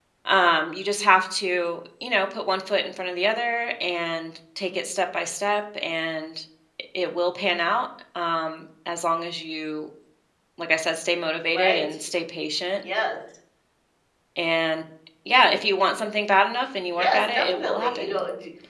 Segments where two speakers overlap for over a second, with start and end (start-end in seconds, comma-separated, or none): 16.9-18.2